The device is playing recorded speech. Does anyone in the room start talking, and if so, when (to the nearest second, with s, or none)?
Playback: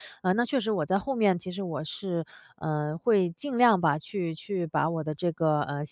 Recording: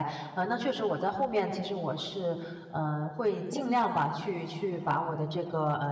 4 s